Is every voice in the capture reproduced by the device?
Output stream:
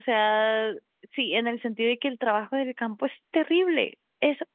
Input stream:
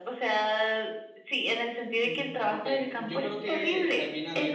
No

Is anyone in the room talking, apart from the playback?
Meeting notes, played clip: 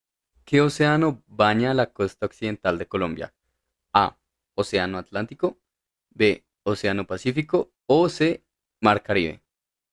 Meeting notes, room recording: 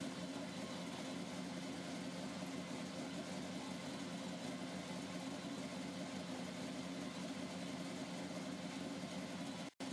No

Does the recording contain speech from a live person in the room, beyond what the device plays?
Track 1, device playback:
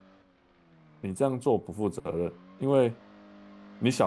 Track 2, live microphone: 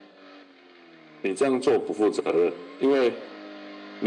No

